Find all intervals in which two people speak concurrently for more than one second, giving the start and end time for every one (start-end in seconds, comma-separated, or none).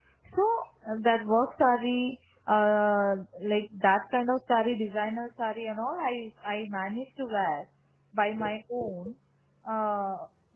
none